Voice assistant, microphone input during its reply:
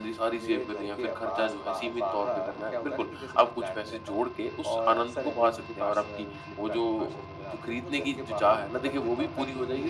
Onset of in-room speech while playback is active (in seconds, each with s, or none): none